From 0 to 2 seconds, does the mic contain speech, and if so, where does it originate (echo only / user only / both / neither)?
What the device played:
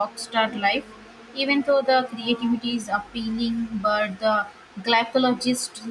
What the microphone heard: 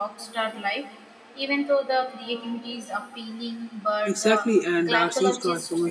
echo only